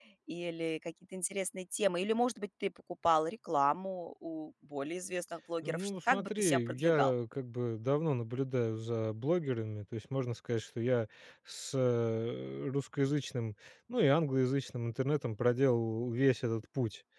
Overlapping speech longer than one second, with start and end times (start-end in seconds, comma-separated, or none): 5.6-7.1